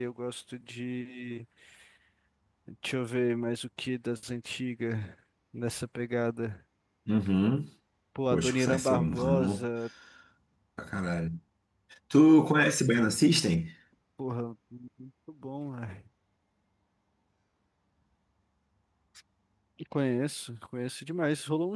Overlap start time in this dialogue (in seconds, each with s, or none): 8.3 s